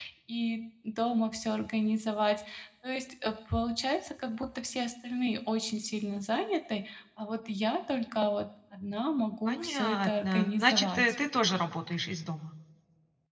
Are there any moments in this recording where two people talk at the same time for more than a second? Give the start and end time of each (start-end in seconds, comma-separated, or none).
9.5-11.2